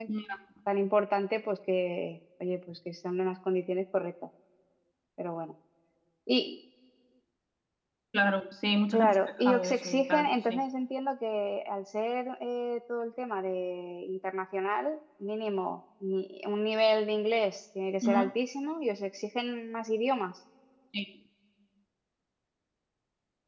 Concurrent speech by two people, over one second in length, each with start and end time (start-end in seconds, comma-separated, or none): 8.9-10.6